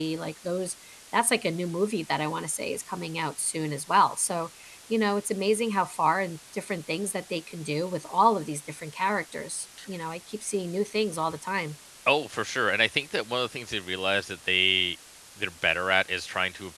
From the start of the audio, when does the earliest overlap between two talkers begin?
none

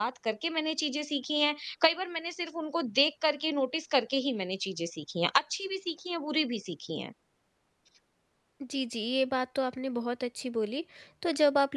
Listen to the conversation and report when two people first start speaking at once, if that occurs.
none

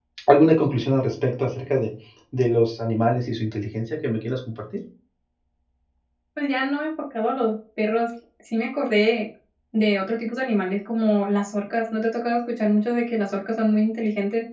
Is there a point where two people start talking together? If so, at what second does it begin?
none

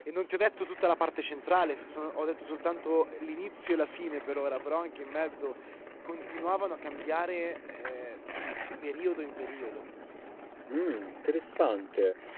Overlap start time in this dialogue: none

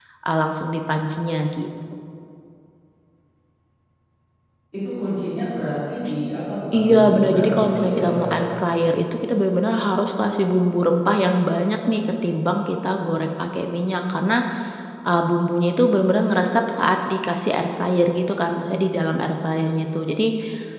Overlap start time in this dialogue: 7 s

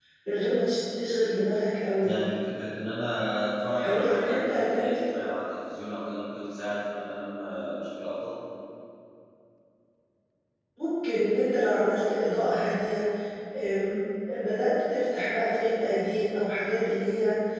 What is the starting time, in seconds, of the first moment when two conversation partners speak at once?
4 s

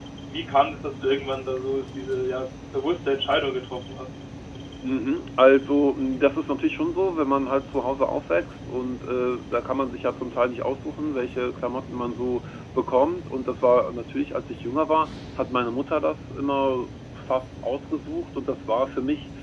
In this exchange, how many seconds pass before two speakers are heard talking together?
none

